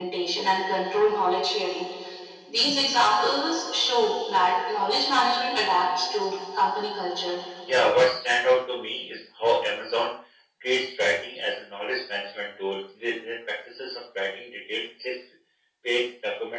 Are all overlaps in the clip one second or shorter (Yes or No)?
Yes